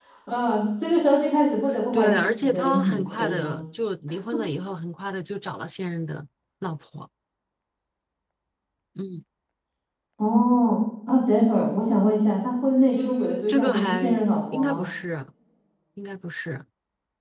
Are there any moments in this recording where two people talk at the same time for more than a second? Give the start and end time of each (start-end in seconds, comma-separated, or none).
1.9-3.5, 12.9-14.1